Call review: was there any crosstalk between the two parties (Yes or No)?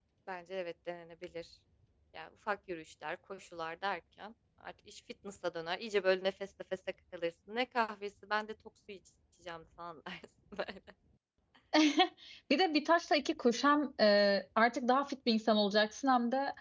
No